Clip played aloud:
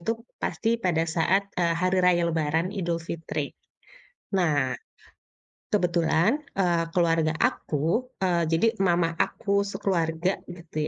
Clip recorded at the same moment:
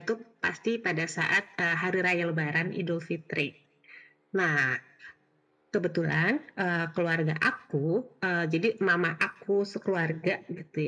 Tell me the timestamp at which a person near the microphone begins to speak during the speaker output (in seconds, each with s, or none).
none